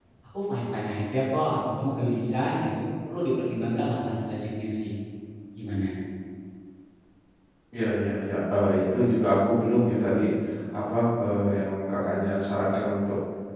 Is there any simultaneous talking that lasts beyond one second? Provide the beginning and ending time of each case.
none

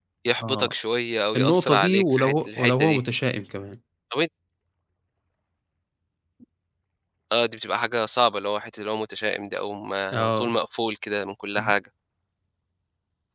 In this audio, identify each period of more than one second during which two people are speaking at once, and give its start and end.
1.4-3.0

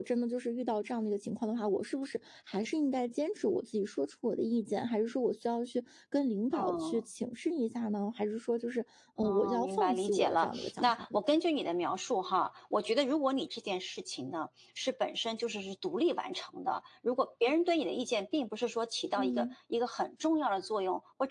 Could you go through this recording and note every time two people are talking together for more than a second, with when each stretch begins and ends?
9.2-11.2

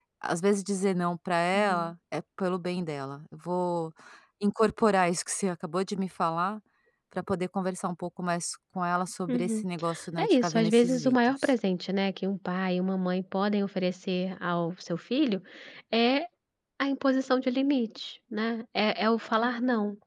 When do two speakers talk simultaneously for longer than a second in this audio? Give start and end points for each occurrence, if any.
10.2-11.5

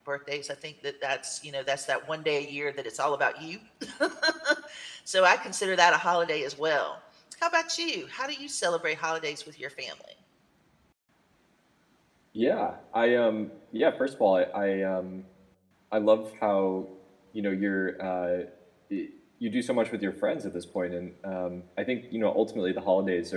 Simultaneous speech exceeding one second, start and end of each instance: none

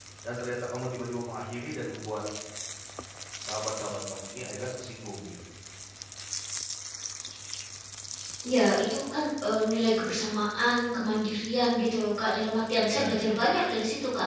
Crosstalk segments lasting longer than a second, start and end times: none

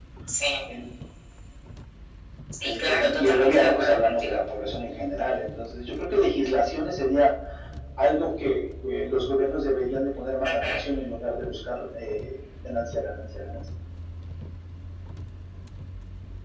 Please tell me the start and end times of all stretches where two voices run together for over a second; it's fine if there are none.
2.6-4.4

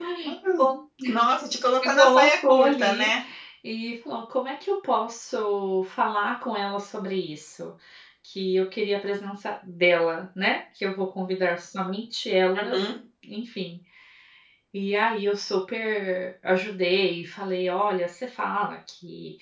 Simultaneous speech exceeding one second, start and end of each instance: 1.8-3.1

